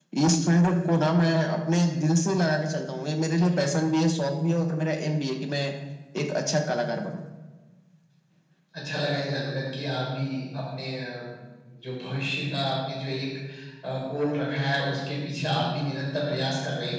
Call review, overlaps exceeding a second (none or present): none